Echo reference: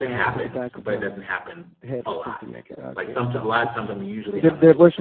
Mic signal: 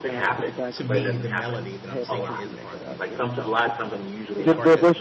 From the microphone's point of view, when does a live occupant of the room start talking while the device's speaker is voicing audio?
0.7 s

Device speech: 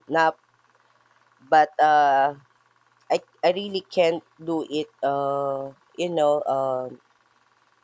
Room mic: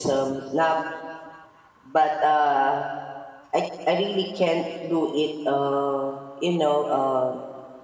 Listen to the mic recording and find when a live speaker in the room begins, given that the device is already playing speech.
none

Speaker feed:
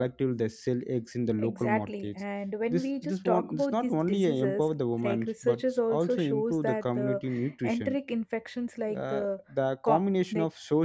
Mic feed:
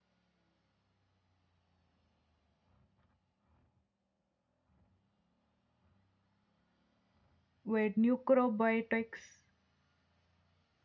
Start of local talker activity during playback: 7.6 s

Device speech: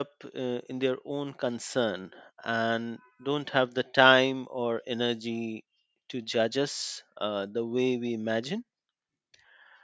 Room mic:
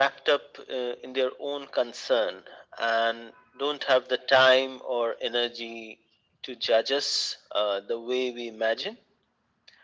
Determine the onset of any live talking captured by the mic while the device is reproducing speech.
none

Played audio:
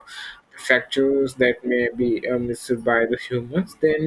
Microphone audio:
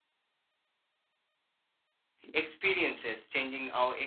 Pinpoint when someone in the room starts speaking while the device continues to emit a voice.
2.3 s

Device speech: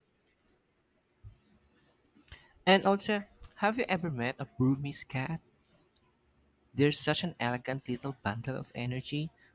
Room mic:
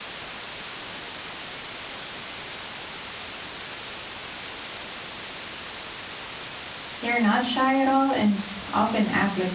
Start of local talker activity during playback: 7.0 s

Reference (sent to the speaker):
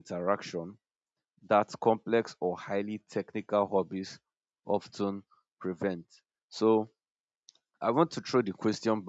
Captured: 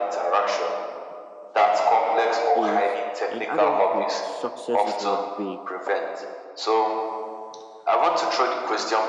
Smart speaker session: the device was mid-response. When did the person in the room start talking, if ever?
2.6 s

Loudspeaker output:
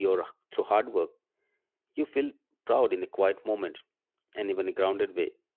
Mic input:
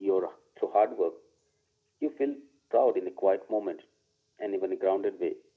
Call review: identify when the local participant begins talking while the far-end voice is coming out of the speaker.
none

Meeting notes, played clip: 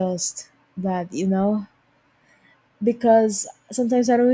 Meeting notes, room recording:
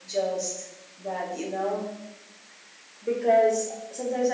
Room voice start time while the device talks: none

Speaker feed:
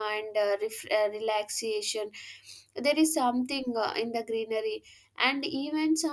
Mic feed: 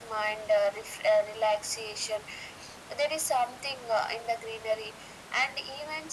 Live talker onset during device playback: none

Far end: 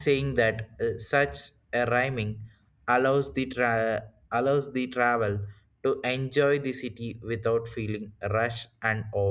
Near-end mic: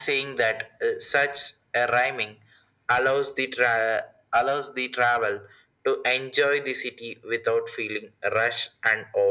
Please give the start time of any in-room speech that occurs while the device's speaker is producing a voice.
none

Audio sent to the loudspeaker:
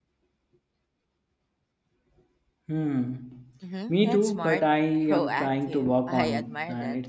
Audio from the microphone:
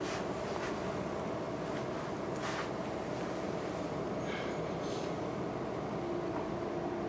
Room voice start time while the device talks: none

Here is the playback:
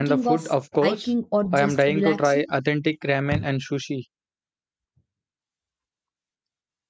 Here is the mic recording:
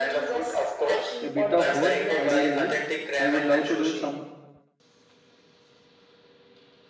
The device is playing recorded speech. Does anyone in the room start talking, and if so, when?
1.2 s

